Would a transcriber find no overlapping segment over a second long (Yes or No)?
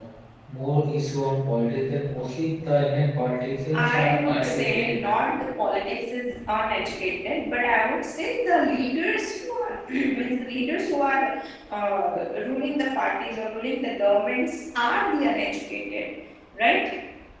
No